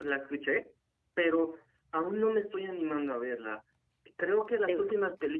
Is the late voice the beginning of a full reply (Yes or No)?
No